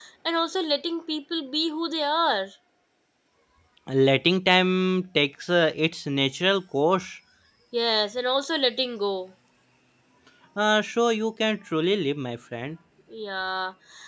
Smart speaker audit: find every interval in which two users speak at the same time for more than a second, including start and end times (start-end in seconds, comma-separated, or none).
none